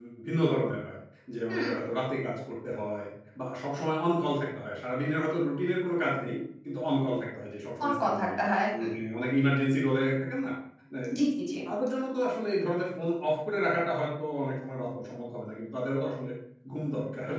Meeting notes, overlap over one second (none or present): none